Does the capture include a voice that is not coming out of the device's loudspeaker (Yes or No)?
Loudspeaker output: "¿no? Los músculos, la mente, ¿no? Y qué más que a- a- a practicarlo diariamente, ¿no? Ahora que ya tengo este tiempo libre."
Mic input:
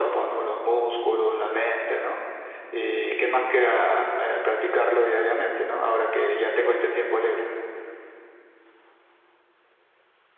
No